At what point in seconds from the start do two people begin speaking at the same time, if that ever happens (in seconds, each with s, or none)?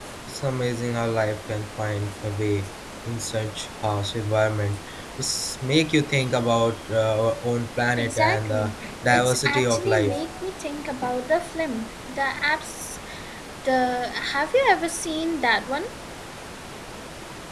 8.0 s